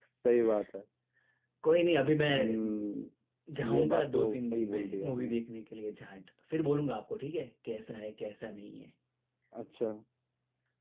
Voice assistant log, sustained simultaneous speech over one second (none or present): present